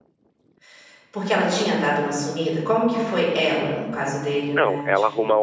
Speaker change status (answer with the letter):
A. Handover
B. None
A